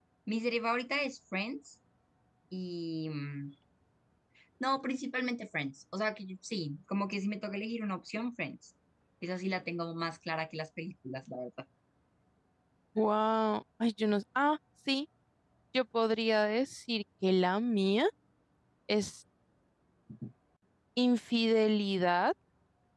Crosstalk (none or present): none